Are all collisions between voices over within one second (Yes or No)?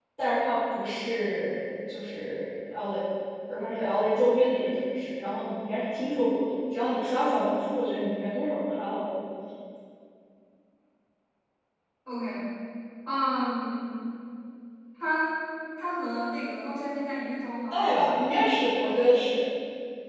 Yes